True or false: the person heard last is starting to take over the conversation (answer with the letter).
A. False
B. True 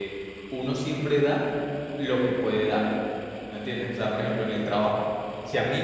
A